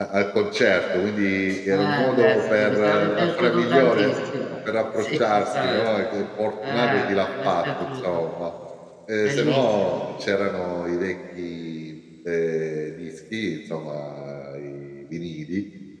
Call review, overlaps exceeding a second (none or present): present